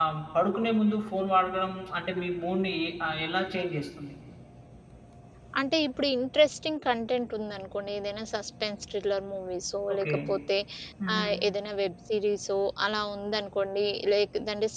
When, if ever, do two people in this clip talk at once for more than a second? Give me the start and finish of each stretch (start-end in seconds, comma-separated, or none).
none